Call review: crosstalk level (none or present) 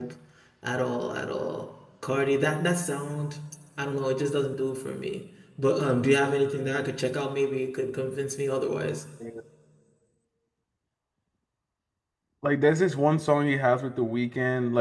none